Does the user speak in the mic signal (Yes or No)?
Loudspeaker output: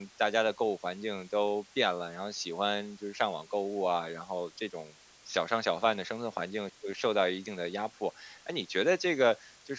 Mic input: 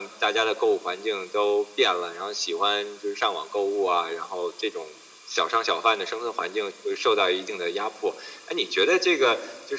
No